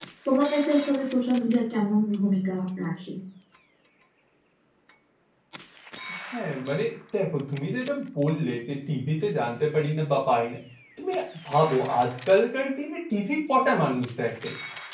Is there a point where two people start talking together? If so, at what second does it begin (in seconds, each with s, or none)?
none